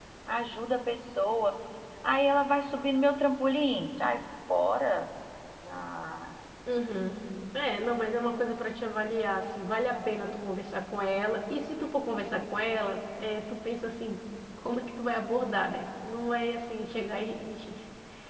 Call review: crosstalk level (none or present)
none